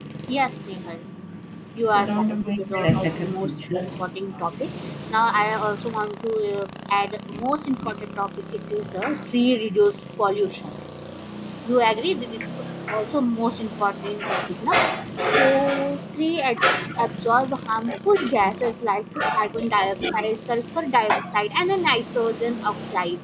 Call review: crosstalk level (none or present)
present